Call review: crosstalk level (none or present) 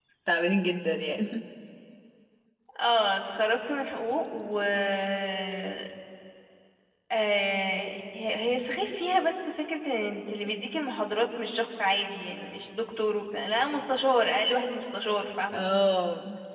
none